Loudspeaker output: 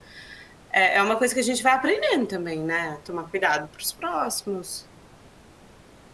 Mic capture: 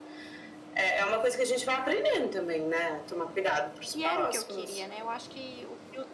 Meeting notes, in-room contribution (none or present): present